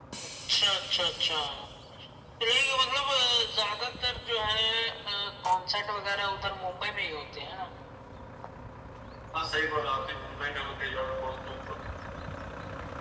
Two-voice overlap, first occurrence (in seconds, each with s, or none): none